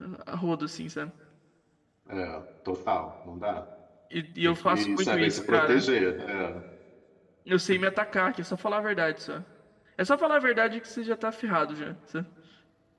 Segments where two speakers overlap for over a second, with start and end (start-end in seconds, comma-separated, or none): 4.4-5.8